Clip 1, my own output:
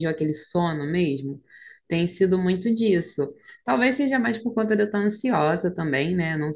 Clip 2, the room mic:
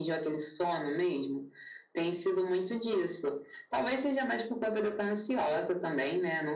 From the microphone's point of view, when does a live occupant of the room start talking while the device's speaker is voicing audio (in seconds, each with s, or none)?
none